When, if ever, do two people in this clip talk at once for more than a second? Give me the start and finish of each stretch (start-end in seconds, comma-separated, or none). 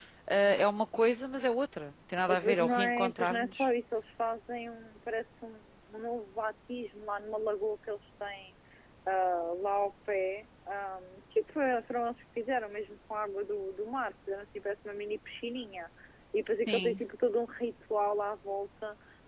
2.3-3.7